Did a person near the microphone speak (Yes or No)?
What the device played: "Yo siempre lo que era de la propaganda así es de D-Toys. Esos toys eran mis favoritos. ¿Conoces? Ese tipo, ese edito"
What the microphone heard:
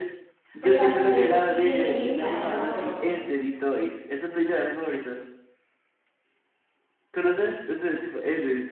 Yes